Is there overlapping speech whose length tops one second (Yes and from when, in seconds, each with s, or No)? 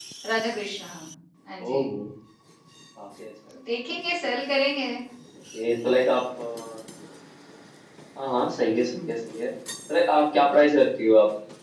No